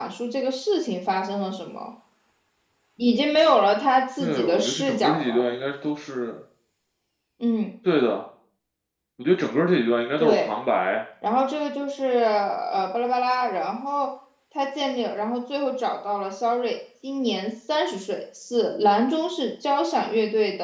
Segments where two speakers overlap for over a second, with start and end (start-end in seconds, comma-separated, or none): 4.2-5.4